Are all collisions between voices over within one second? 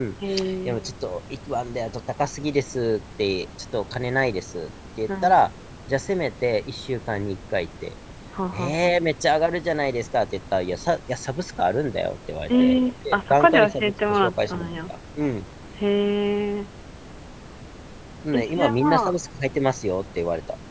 No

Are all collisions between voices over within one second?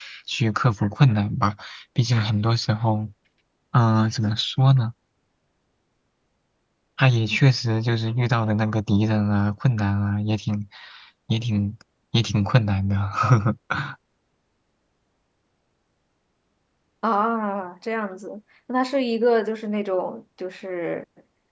Yes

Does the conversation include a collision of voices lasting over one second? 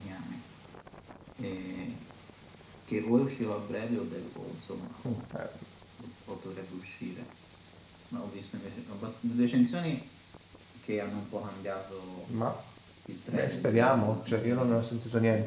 Yes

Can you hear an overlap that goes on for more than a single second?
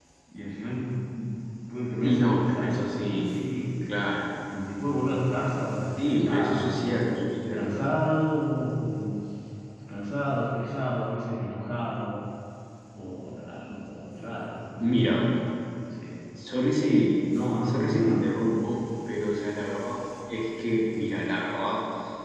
Yes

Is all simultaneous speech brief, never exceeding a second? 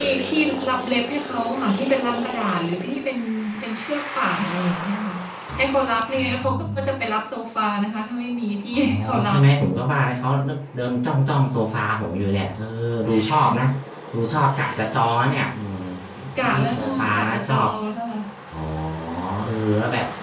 No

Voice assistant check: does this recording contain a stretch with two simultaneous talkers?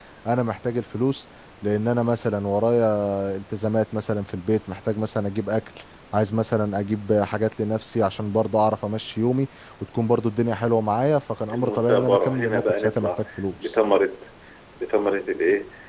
Yes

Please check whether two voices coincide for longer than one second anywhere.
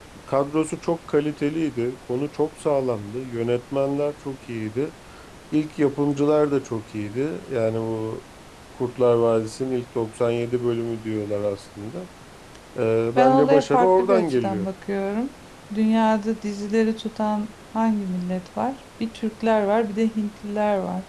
Yes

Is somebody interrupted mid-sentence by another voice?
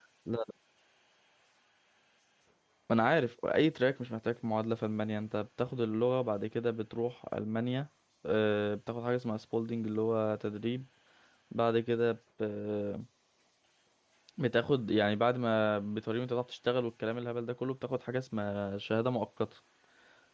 No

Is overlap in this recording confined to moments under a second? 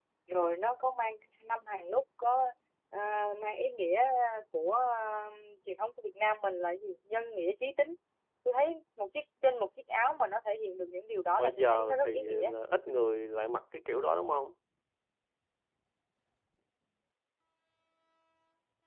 No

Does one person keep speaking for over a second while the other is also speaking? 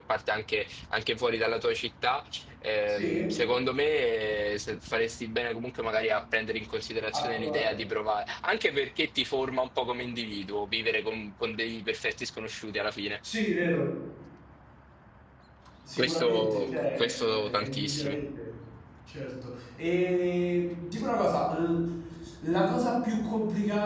Yes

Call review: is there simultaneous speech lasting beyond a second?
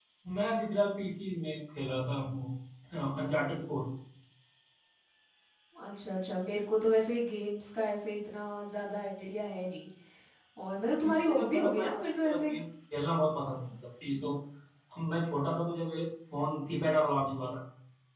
Yes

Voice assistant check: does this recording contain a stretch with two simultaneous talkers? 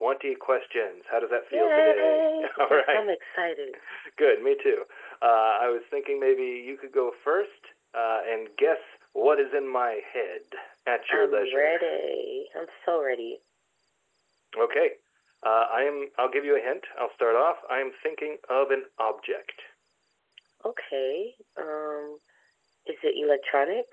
Yes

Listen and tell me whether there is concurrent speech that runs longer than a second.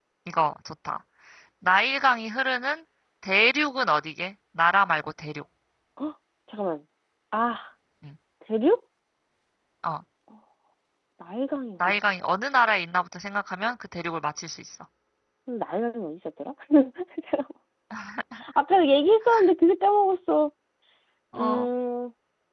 No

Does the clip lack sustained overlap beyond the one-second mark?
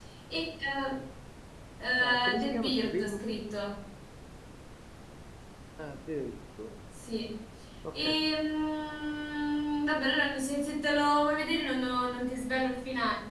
No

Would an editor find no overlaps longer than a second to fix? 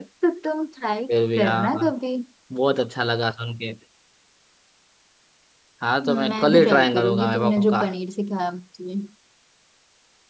No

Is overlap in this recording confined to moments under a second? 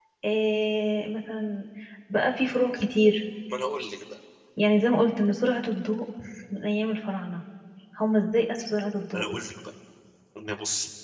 Yes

